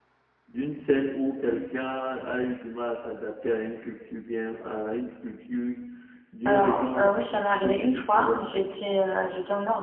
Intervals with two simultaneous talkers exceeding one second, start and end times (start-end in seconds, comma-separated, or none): 6.4-8.6